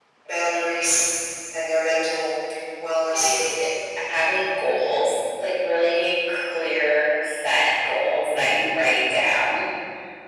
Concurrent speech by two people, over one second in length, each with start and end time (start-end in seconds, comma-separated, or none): none